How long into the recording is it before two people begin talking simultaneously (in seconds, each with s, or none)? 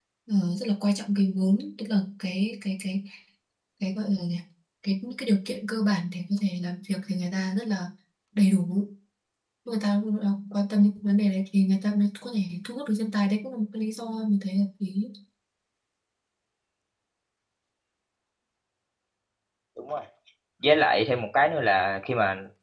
none